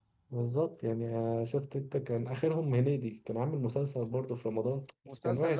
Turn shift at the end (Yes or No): Yes